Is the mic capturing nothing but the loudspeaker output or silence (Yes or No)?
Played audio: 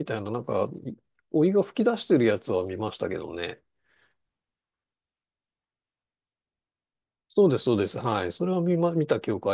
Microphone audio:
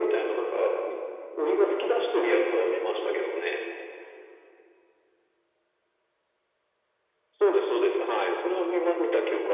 Yes